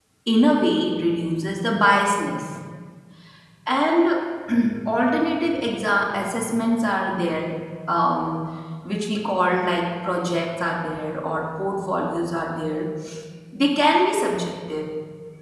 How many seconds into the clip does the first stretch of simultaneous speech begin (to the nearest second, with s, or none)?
none